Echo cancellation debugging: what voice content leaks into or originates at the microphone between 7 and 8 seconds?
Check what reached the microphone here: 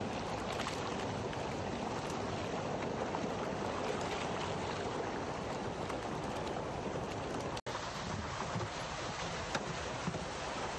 neither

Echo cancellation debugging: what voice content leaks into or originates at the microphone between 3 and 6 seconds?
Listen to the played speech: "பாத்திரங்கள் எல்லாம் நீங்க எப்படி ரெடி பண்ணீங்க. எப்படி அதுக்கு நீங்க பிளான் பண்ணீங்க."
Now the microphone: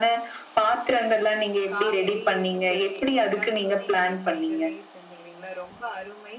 both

